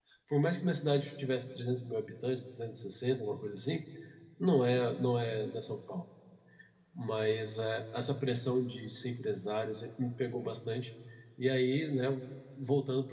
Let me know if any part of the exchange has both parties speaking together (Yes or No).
No